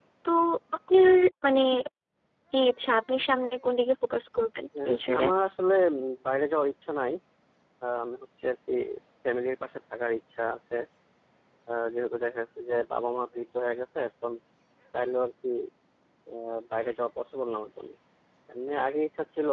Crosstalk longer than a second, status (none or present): none